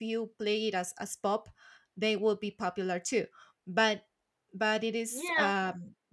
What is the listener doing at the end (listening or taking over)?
listening